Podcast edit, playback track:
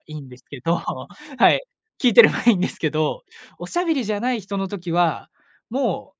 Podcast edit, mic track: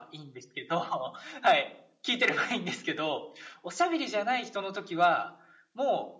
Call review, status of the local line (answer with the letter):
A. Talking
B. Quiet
B